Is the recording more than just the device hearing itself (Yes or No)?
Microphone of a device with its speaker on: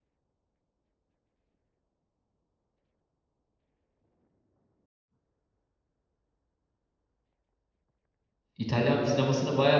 Yes